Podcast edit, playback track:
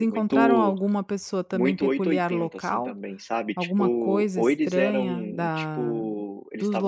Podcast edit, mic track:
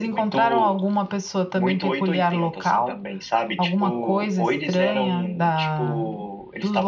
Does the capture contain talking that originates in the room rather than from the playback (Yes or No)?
No